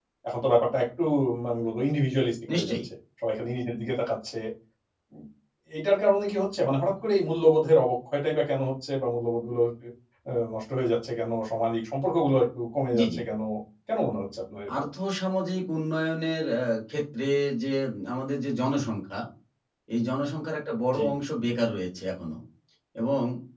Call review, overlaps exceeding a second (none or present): none